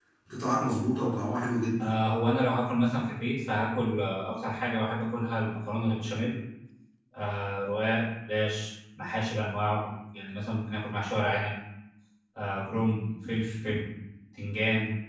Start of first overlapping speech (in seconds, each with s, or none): none